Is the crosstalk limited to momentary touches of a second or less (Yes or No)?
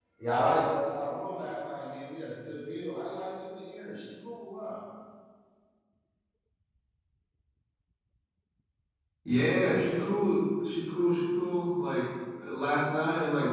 Yes